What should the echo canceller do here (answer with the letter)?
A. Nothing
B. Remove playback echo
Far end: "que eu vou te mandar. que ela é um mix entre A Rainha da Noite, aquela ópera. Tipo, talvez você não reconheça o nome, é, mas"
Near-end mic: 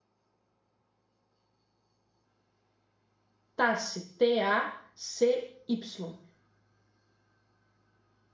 A